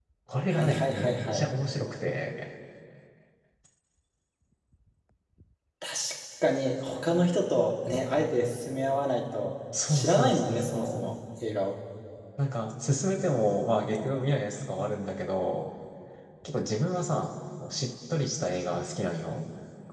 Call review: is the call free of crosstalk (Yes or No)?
No